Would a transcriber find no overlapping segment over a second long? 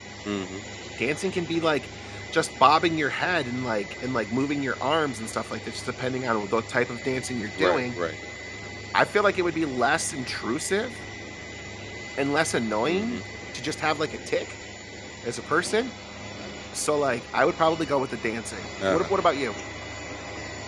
Yes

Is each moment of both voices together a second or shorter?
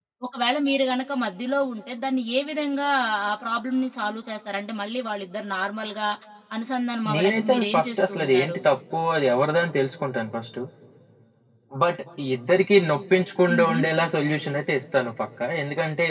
No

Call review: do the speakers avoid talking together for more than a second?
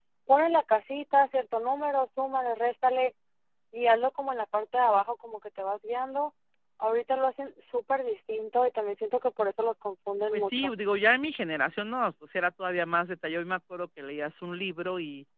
Yes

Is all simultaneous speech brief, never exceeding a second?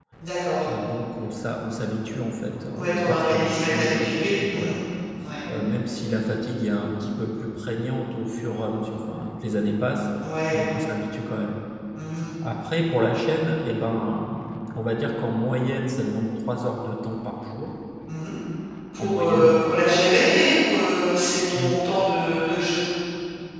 No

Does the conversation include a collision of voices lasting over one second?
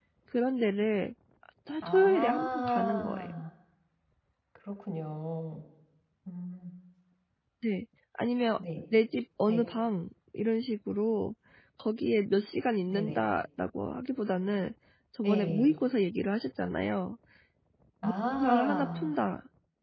Yes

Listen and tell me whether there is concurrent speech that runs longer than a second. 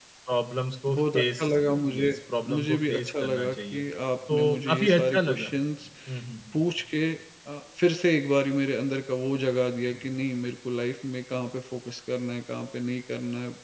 Yes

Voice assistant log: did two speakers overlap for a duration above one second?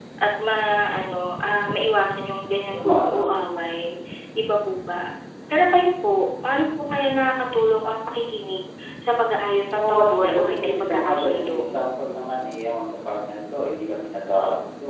Yes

